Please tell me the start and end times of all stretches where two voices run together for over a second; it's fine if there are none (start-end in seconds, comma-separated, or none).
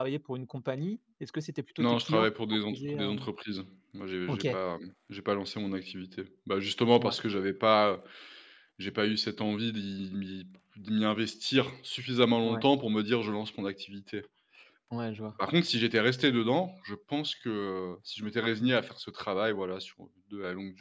1.8-3.3